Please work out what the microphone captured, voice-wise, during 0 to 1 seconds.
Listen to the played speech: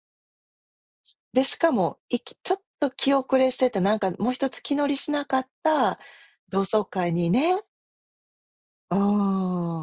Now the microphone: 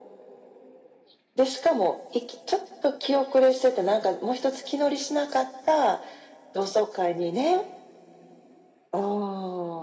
neither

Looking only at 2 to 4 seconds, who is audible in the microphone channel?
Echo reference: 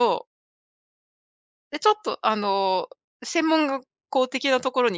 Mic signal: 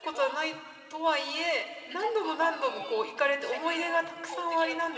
both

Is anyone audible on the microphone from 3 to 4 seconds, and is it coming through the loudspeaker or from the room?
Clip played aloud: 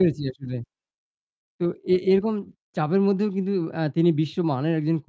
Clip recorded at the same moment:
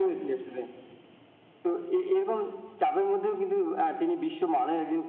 echo only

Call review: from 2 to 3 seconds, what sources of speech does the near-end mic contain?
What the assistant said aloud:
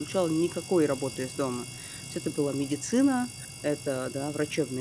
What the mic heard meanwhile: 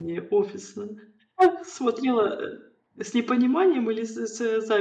user only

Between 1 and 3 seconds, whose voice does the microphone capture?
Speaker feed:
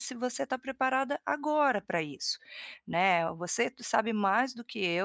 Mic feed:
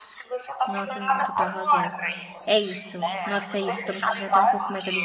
both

